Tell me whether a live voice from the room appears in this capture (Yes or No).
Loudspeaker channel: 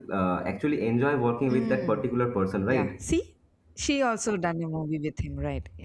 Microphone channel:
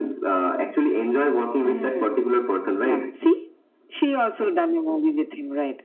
No